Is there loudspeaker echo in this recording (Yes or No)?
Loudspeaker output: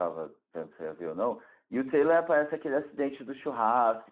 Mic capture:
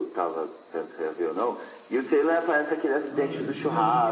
Yes